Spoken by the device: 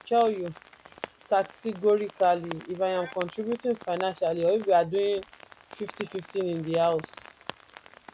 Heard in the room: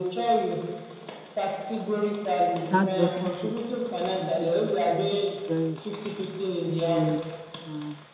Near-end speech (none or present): present